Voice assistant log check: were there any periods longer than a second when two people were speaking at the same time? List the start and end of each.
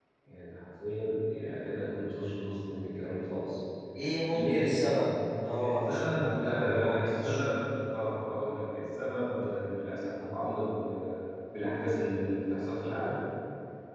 5.6-7.4

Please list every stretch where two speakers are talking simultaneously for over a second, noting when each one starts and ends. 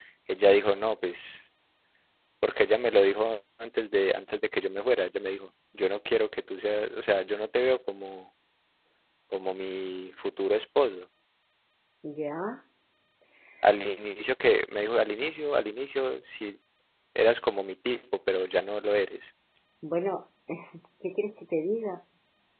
none

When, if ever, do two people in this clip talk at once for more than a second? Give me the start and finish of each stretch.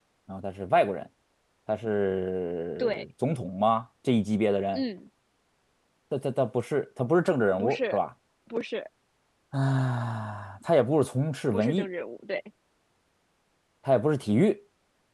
none

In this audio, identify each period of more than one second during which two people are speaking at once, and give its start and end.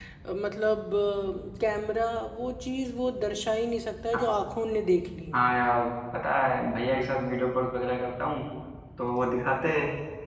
none

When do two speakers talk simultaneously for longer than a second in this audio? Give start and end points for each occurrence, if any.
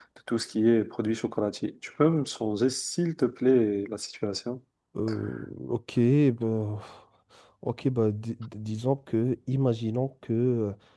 none

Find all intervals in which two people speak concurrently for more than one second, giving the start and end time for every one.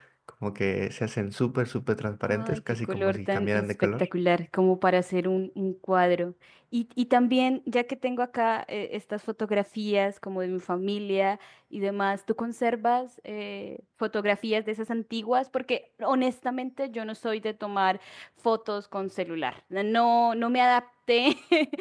2.3-4.1

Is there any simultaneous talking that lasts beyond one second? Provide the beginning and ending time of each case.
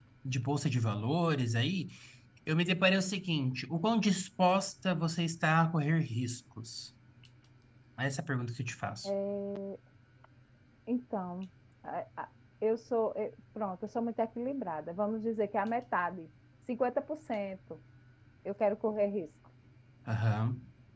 none

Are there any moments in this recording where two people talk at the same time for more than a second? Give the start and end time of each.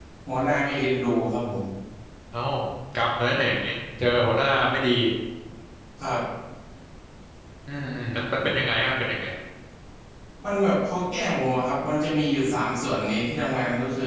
none

